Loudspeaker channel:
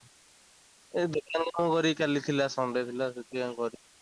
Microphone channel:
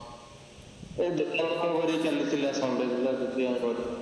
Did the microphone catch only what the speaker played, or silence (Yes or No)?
Yes